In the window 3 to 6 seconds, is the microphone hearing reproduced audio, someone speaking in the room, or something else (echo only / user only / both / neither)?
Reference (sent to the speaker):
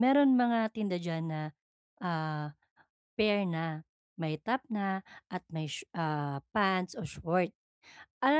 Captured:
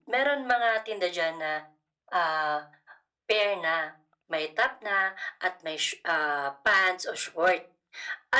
echo only